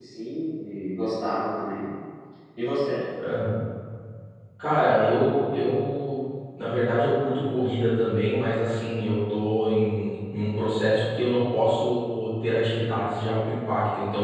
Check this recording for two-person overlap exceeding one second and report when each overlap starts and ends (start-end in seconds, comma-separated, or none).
none